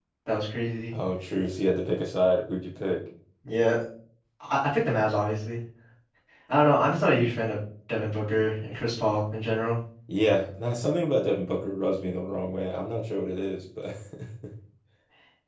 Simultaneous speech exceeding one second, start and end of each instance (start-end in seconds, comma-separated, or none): none